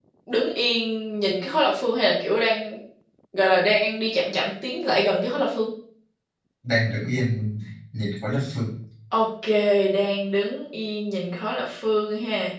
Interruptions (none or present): none